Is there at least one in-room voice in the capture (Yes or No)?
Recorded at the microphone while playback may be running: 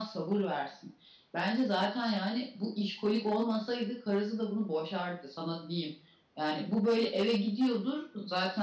No